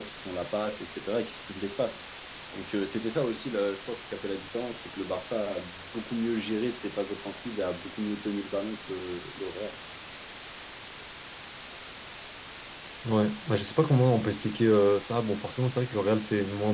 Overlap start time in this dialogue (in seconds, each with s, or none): none